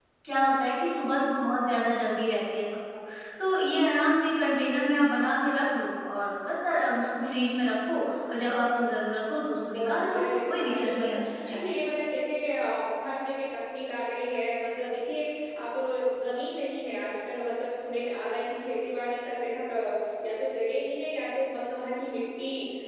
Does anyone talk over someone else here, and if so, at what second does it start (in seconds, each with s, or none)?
9.3 s